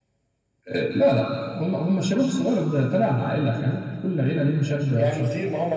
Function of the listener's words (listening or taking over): taking over